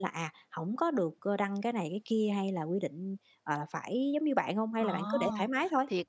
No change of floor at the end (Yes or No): No